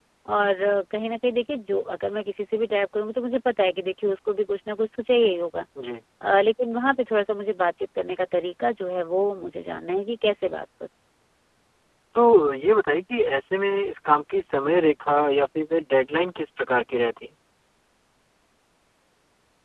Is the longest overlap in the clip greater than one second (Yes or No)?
No